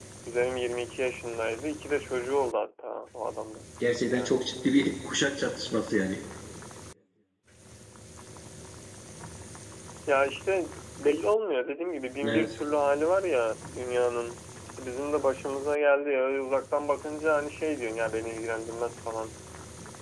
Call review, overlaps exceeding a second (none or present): none